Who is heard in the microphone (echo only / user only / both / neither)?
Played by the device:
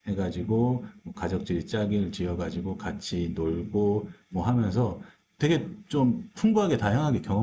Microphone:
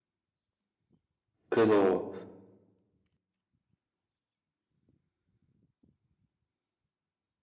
user only